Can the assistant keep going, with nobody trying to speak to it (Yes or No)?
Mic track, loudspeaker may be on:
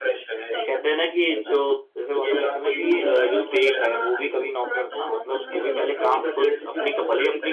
No